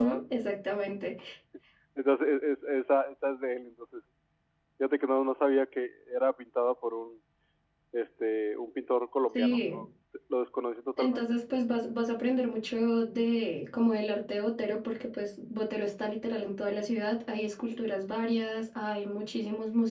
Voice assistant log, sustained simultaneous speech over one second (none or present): none